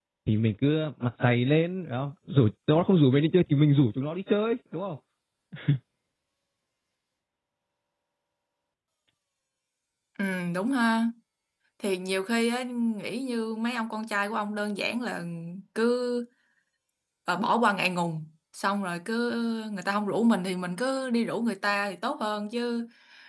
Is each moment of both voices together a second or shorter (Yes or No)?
Yes